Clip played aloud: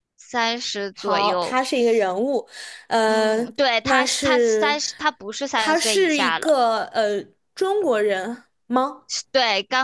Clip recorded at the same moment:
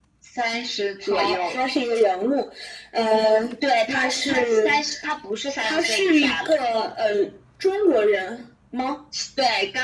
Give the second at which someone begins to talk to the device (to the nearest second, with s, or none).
none